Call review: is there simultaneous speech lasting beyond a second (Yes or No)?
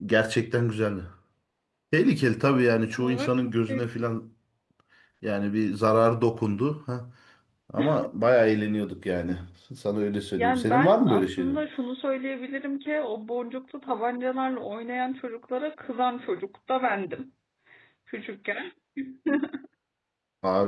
Yes